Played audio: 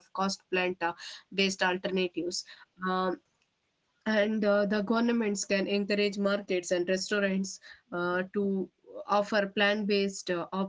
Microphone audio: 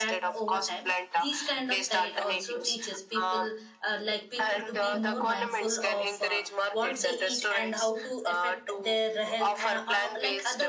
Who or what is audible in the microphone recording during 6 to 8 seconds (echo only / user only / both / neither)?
both